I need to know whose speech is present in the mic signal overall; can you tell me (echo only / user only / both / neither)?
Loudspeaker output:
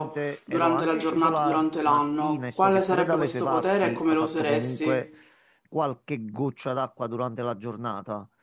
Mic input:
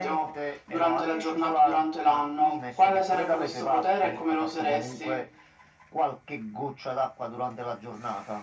echo only